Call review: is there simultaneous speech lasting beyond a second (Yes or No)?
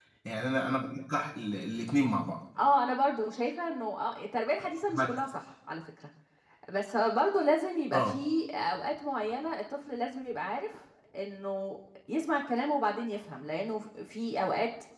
No